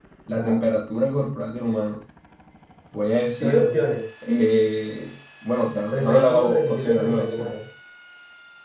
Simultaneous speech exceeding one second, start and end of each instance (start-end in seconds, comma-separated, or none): 5.9-7.5